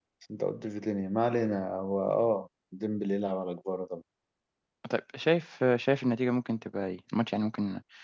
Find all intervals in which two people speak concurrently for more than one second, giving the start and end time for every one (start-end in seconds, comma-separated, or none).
none